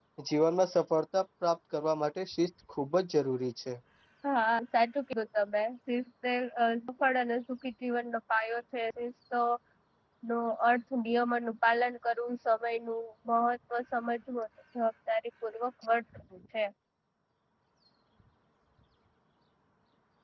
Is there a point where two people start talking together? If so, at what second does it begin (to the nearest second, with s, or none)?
none